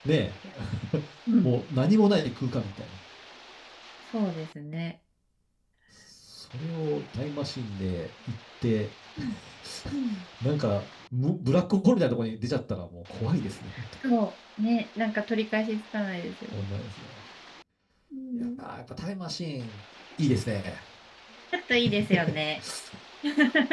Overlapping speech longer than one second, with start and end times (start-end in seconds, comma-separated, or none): none